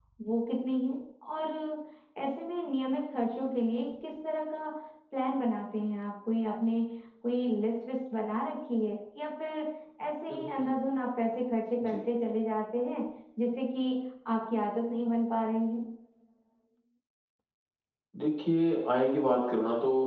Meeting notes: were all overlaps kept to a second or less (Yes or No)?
Yes